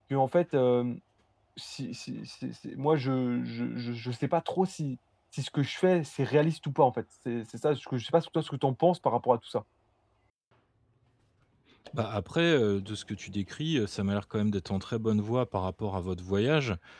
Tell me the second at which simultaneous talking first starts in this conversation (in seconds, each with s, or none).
none